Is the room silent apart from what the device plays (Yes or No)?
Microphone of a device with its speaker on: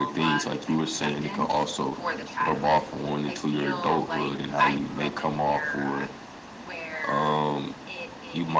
Yes